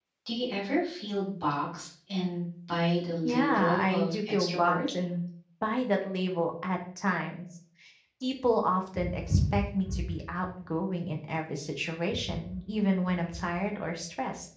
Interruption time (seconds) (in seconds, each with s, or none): 3.2 s